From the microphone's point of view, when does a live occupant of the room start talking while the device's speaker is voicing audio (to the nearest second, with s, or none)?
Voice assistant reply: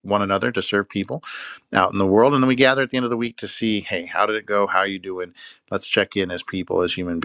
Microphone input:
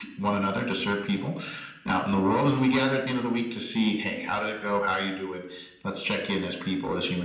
none